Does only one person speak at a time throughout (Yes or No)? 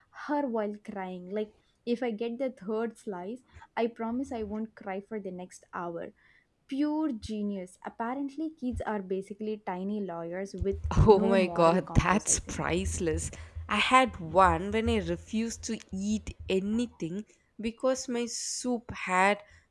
No